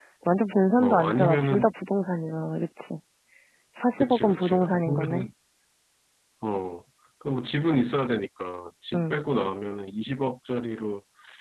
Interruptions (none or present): present